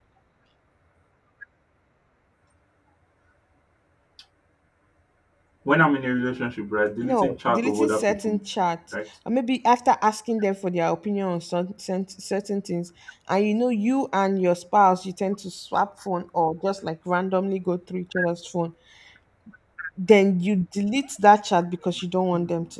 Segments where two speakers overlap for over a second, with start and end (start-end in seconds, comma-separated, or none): 7.0-8.4